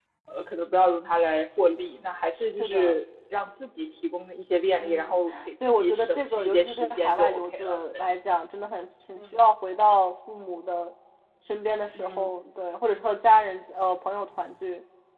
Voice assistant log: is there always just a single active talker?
No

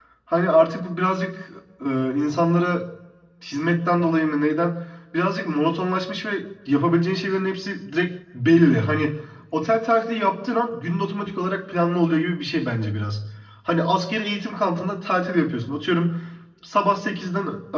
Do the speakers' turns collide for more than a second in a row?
No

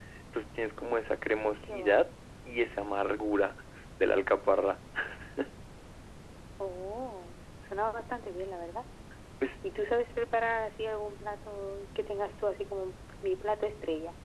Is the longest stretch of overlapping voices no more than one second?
Yes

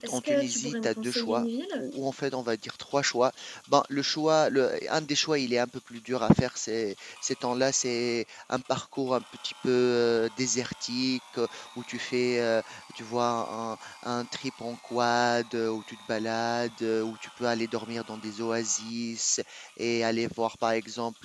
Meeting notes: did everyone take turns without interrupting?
No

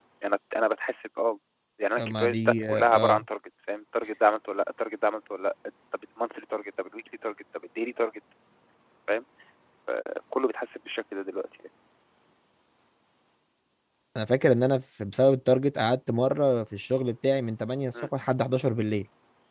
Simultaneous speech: Yes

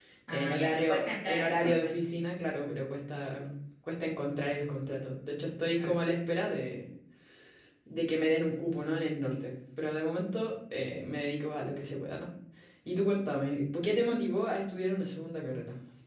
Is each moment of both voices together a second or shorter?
No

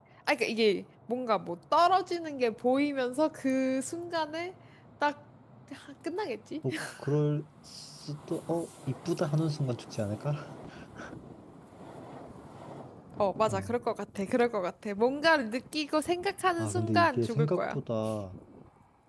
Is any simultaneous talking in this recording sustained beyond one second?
Yes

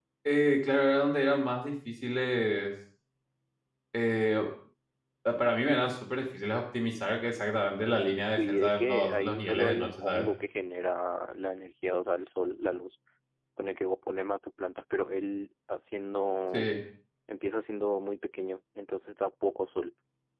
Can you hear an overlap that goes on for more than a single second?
Yes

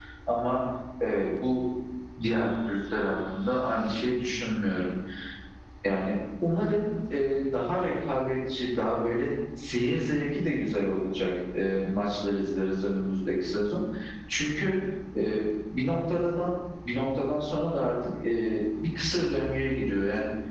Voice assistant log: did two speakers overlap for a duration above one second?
No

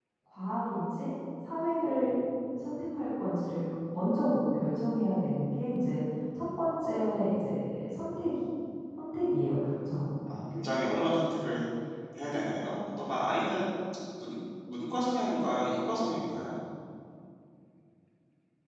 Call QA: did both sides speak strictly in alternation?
Yes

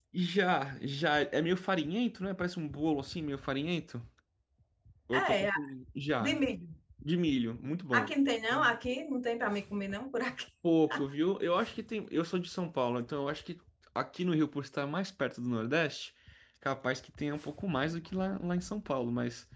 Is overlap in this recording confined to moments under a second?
Yes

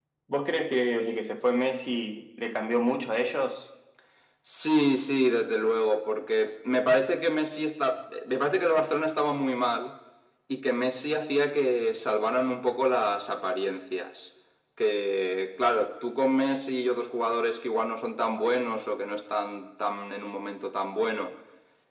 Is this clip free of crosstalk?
Yes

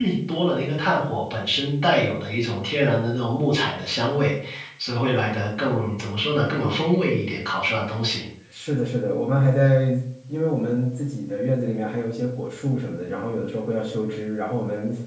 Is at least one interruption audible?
No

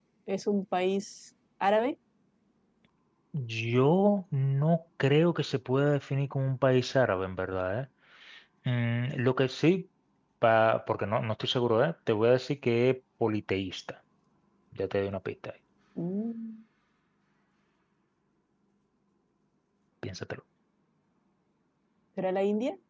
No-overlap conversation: Yes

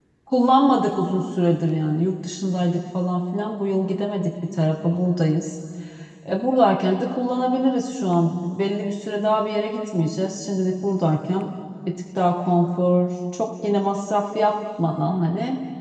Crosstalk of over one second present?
No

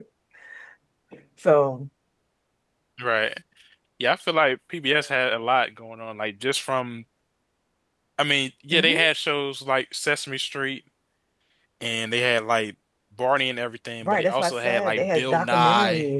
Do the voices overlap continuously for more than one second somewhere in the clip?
Yes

